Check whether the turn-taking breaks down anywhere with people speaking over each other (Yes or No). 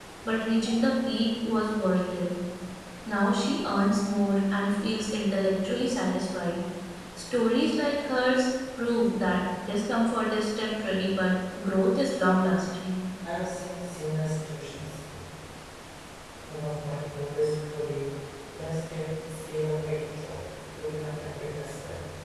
No